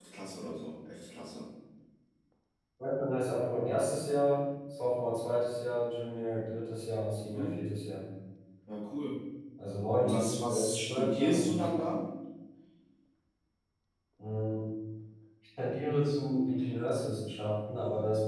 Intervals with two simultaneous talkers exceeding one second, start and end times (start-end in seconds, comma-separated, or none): 10.0-11.7